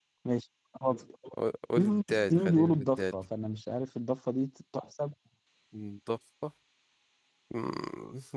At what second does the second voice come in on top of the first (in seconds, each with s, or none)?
1.8 s